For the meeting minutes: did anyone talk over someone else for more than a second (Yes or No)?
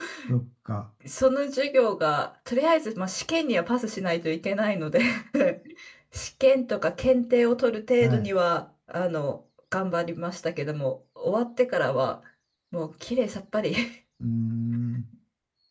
No